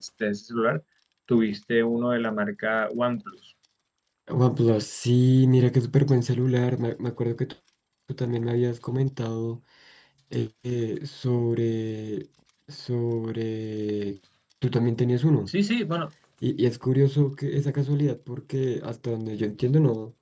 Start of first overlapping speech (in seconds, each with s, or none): none